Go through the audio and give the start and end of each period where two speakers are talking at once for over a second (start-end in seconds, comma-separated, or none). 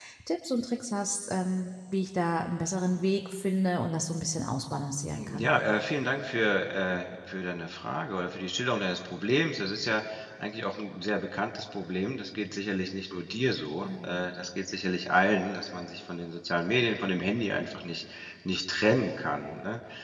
none